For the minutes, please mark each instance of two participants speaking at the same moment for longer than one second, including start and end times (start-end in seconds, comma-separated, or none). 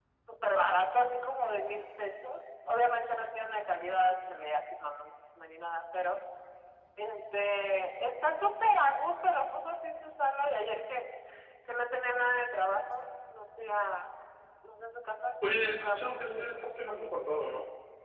15.5-17.3